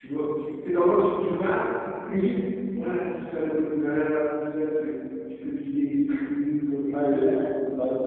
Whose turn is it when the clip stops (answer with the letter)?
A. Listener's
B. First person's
A